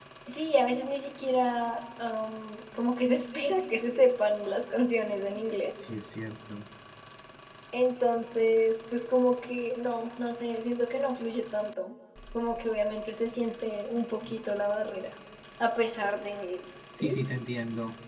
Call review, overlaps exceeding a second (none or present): none